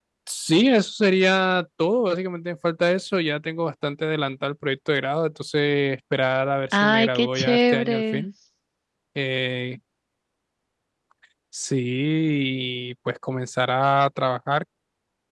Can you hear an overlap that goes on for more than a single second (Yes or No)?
Yes